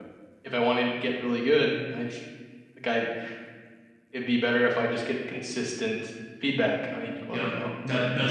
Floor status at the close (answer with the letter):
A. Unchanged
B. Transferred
B